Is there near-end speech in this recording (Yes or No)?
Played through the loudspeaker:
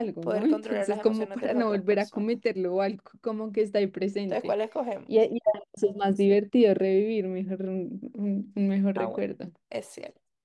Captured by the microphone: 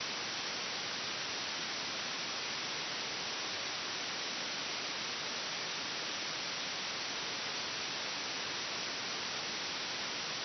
No